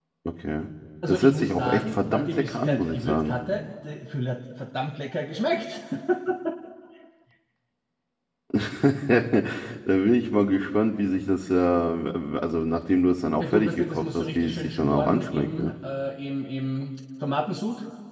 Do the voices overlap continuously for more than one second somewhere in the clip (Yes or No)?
Yes